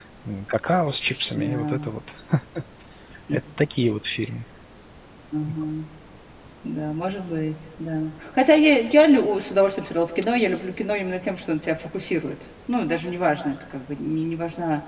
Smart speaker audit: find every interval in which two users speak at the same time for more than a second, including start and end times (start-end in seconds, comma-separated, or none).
none